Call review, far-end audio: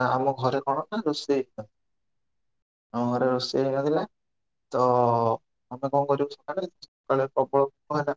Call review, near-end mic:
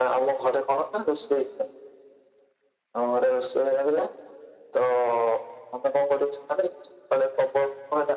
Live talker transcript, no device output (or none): none